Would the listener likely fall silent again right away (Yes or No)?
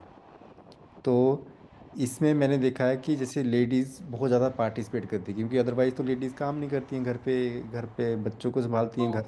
Yes